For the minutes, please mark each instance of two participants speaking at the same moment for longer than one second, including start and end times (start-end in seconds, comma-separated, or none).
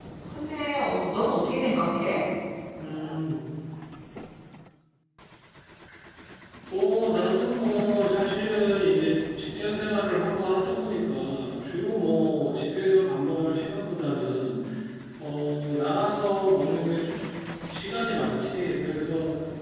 none